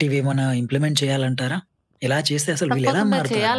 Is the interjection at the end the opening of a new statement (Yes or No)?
Yes